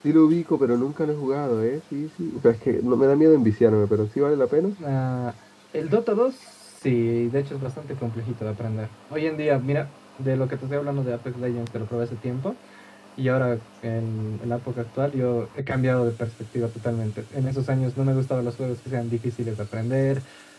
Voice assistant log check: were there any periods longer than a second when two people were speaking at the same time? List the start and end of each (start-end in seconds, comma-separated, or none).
none